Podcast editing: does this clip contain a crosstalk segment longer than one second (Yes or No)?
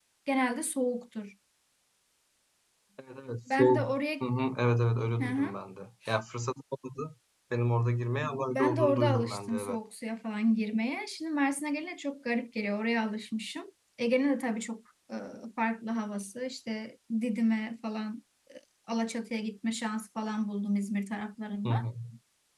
Yes